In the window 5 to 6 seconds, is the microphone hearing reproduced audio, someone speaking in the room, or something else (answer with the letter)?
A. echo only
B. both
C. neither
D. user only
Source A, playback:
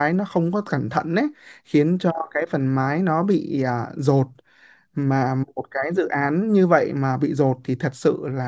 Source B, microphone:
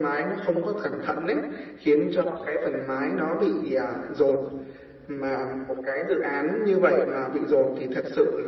A